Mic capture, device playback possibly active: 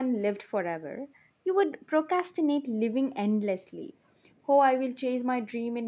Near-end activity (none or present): present